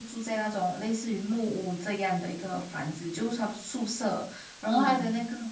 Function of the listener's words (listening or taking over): listening